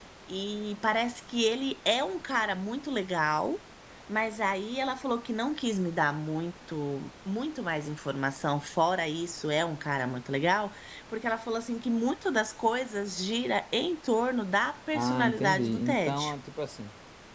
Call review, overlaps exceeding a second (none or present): present